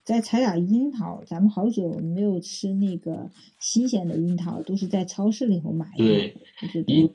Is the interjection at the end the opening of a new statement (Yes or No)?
Yes